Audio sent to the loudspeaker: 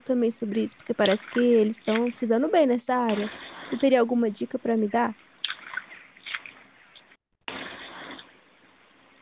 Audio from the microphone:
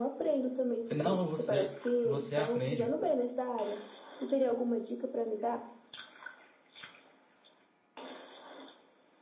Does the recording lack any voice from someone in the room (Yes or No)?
No